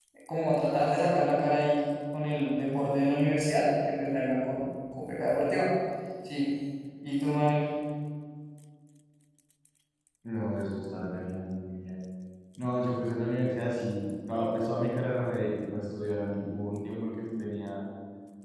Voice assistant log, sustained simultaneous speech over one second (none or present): none